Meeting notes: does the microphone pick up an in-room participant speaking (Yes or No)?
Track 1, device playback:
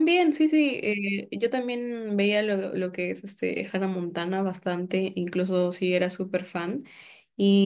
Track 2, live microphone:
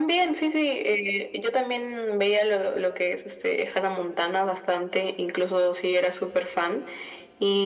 No